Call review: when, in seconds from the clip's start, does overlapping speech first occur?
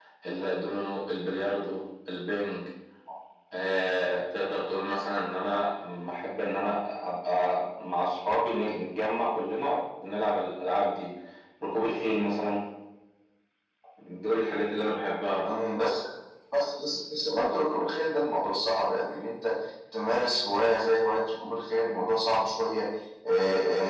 none

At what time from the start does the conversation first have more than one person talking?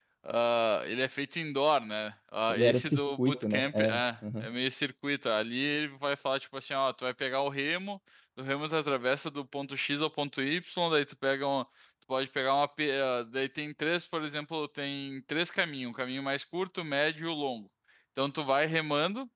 2.5 s

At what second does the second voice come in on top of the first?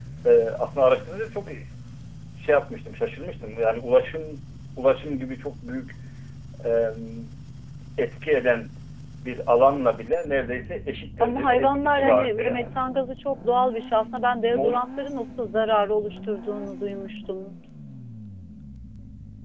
11.2 s

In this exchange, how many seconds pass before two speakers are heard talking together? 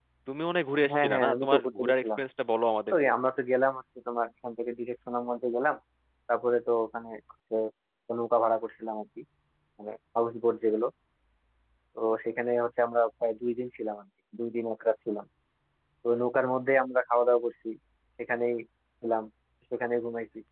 0.9 s

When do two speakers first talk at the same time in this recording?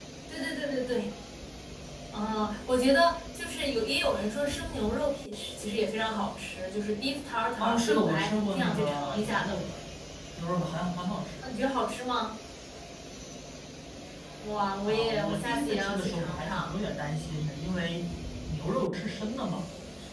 7.6 s

